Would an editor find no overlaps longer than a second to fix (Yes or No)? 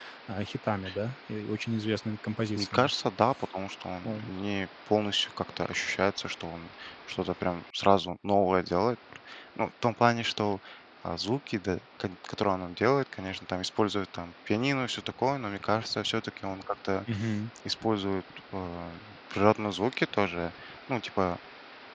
Yes